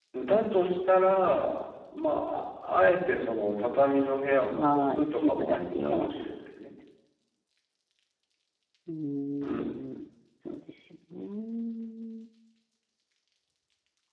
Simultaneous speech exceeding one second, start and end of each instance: 4.5-6.1

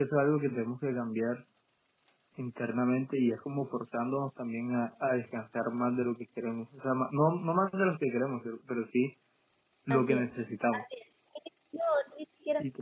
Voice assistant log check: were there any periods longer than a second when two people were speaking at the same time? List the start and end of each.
none

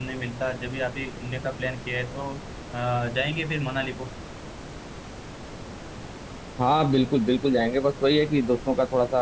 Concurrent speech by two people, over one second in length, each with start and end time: none

